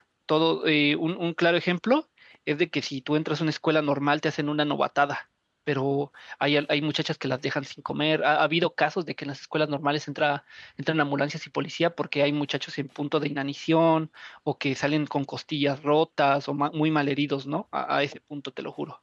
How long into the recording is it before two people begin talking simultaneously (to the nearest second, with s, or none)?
none